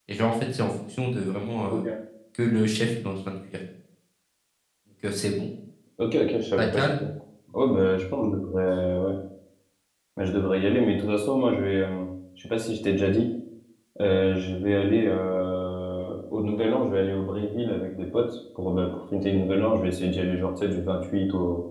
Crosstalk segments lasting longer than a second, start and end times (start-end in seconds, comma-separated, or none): none